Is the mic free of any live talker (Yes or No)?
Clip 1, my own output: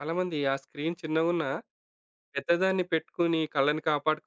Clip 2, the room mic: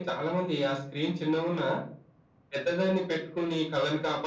Yes